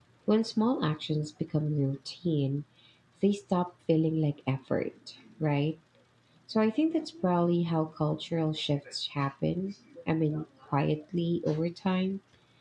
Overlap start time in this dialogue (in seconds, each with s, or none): none